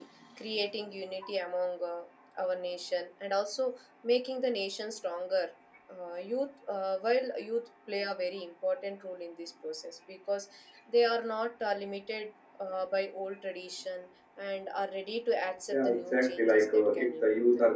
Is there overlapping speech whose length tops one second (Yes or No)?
Yes